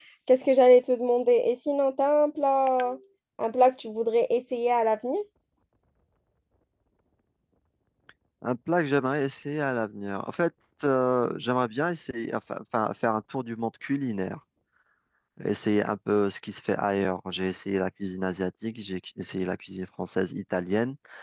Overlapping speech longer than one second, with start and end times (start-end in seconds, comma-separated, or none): none